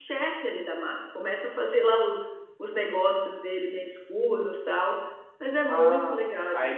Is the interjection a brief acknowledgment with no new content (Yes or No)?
No